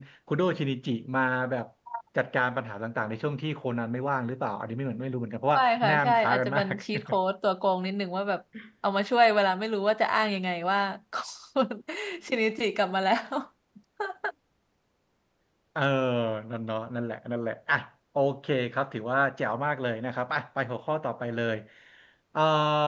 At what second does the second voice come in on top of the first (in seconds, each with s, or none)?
5.5 s